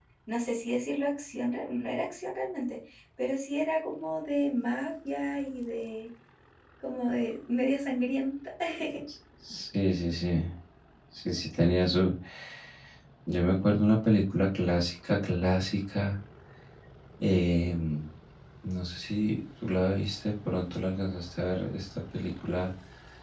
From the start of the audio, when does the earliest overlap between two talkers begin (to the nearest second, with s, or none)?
none